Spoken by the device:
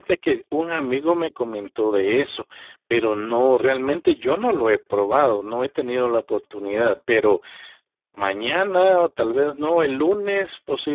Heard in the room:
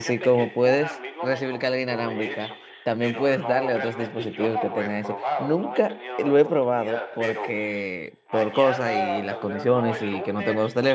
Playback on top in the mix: No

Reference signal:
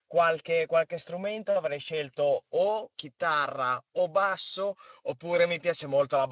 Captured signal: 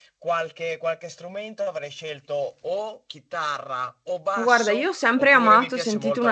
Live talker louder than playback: Yes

